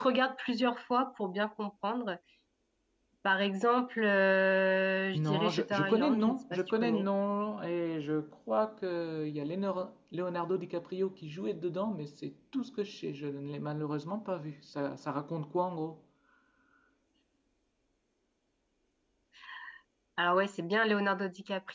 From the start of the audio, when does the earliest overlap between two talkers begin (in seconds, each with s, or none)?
5.1 s